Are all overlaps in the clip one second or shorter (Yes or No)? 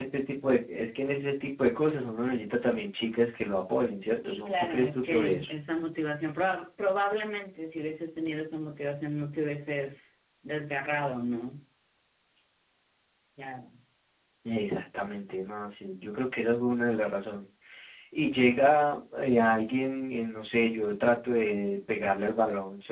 No